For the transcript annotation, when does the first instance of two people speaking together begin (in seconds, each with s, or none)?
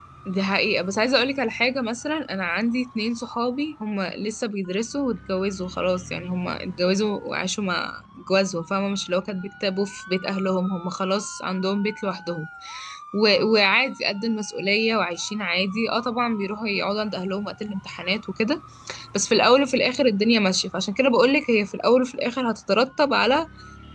none